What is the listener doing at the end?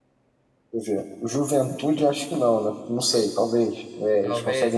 listening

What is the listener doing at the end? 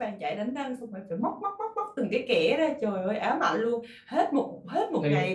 listening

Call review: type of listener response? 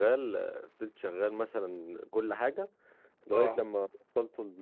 listening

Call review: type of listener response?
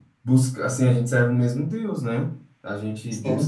listening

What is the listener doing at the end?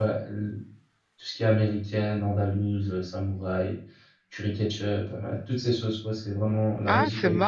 taking over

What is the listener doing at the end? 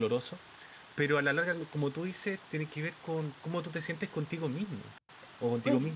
taking over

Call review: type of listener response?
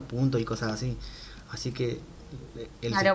taking over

